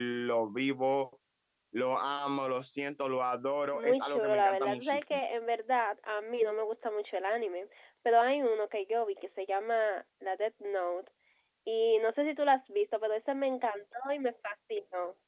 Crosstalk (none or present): present